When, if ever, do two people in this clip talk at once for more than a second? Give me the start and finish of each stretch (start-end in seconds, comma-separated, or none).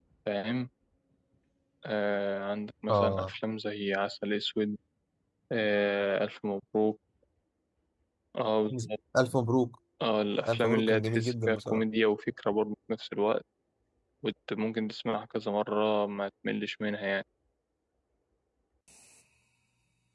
10.5-11.8